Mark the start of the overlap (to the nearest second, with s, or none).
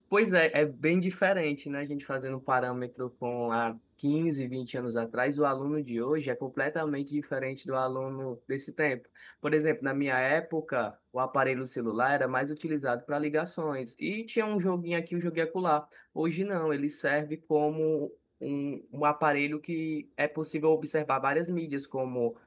none